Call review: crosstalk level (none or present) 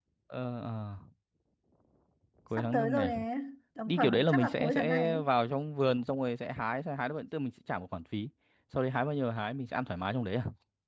present